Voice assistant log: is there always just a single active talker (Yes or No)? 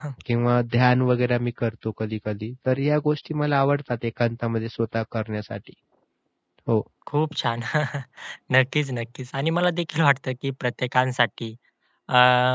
Yes